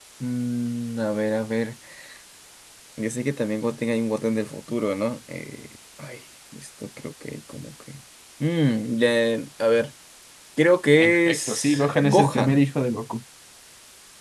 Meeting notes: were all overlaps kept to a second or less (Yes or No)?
No